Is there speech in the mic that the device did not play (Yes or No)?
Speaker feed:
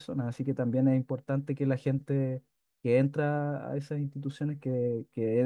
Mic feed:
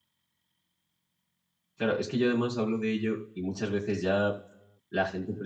Yes